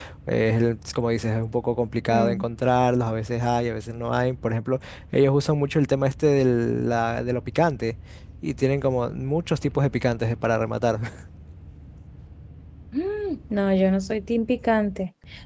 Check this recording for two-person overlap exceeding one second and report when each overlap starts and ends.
none

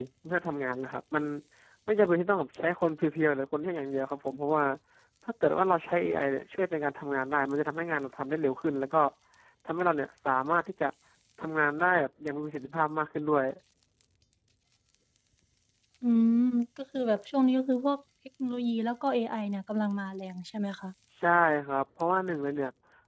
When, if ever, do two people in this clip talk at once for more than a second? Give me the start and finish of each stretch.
none

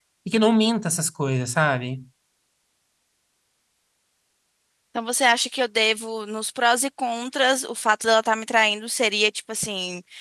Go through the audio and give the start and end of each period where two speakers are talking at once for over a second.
none

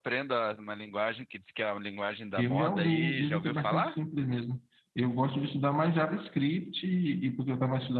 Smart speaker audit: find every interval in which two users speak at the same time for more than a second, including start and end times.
2.4-4.0

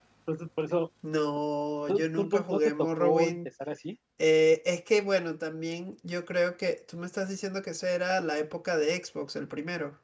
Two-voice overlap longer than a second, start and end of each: 1.9-3.4

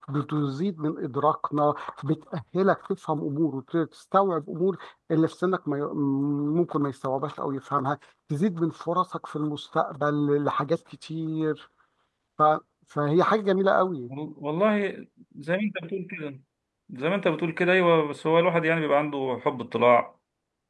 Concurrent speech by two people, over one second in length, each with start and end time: none

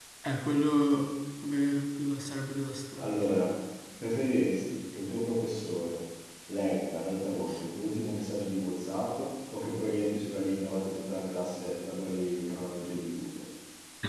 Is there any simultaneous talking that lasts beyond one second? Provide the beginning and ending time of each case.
none

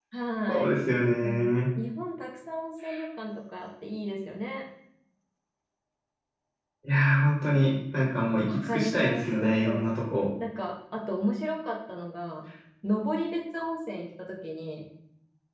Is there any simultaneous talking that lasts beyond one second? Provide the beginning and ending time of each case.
8.5-9.9

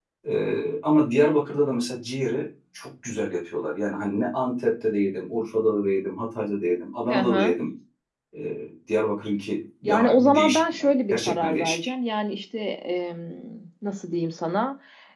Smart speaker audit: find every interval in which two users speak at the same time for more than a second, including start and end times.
9.8-11.9

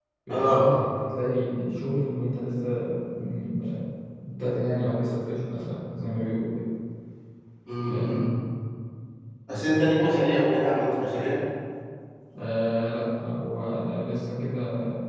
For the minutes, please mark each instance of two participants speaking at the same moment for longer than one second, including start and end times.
none

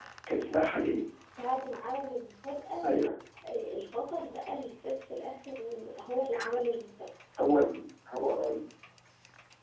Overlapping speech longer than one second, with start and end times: none

